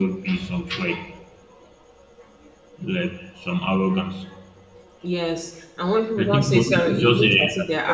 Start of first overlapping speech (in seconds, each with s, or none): 6.2 s